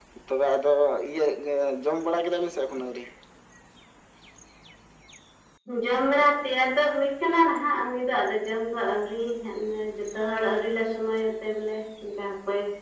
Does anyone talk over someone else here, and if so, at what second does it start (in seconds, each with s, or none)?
none